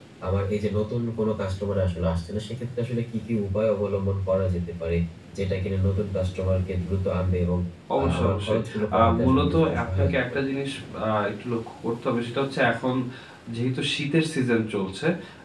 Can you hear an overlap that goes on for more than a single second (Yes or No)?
Yes